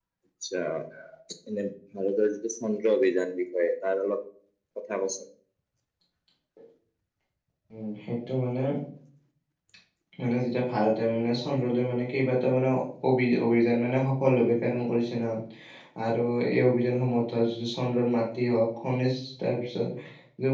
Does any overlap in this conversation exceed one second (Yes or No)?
No